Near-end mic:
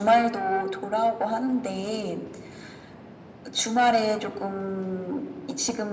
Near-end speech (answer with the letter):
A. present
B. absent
B